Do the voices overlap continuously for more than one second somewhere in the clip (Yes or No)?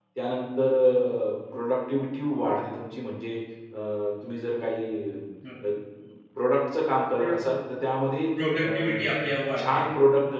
No